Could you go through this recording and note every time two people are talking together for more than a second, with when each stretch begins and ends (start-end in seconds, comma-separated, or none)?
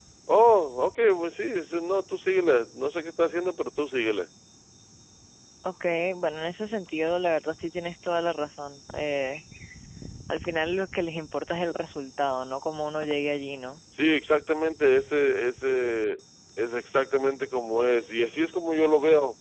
none